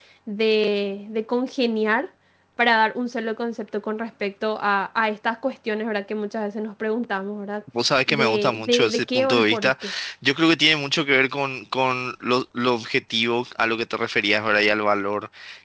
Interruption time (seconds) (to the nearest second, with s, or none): 8 s